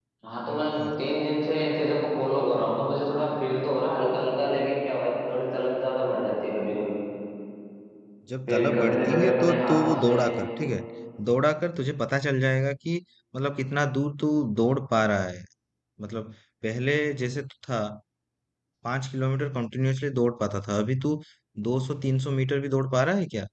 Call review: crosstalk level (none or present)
present